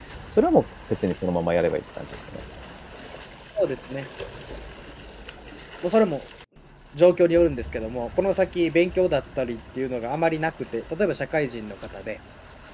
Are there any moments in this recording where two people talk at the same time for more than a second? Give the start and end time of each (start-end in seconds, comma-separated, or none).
none